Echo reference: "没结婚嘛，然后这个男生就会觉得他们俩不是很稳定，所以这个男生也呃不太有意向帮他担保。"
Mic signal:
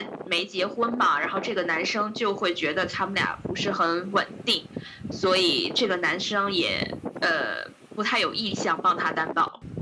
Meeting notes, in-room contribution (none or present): none